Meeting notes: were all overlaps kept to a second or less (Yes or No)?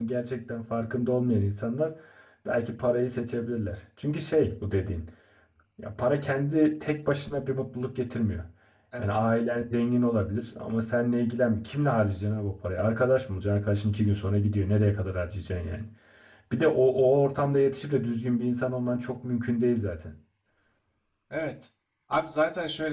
Yes